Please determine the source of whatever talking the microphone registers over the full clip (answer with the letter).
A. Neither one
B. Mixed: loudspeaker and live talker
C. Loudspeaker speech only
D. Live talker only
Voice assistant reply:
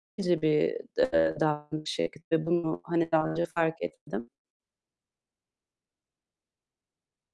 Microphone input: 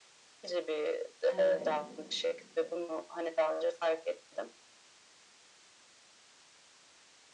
B